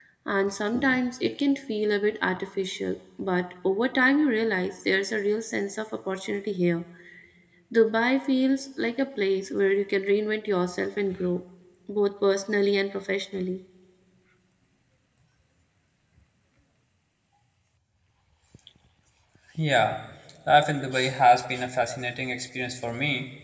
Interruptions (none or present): none